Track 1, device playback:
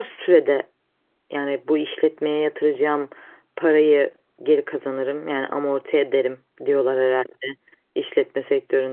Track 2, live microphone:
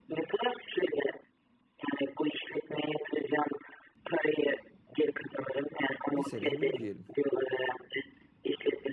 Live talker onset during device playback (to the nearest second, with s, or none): 6 s